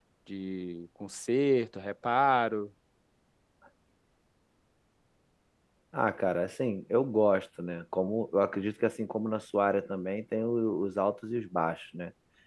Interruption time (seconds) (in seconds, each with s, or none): none